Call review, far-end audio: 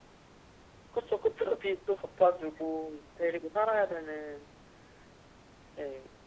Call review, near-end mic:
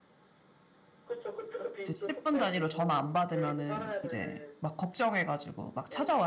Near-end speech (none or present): present